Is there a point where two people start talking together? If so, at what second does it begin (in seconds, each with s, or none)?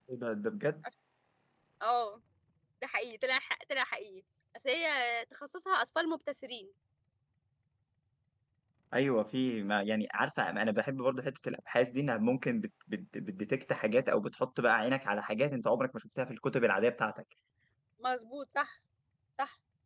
none